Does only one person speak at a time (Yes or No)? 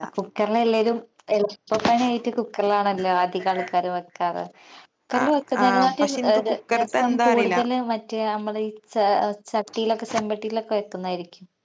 No